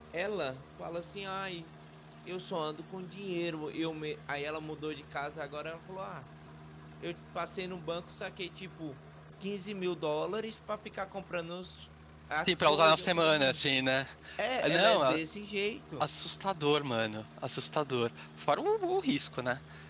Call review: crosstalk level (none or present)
present